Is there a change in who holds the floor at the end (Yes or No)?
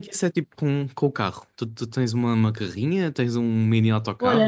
Yes